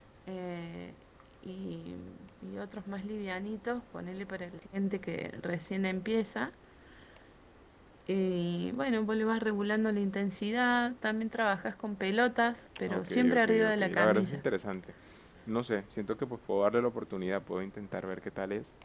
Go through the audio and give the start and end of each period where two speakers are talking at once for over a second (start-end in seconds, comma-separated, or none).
12.9-14.4